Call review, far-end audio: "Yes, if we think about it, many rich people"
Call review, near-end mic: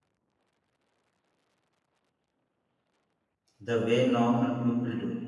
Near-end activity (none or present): present